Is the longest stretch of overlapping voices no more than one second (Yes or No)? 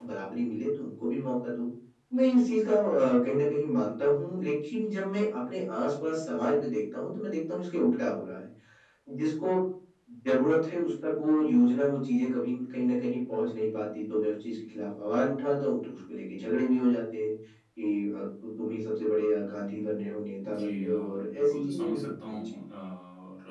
No